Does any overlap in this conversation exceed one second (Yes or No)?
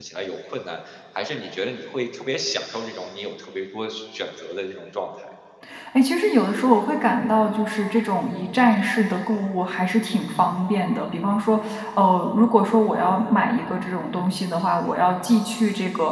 No